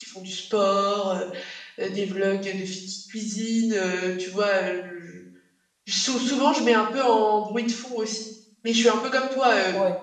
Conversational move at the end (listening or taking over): listening